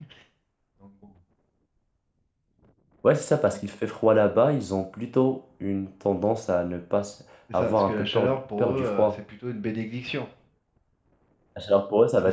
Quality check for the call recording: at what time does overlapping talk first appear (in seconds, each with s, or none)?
7.5 s